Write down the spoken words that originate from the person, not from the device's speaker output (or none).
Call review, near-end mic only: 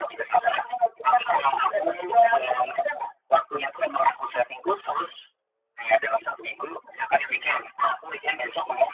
none